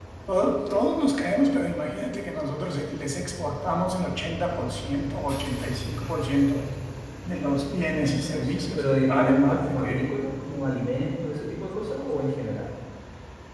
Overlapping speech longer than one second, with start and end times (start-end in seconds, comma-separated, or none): 8.0-10.1